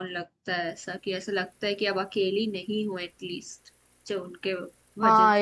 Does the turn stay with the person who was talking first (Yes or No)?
No